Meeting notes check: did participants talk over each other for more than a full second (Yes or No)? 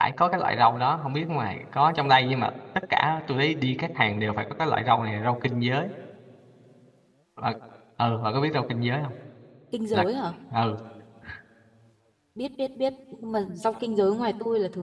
No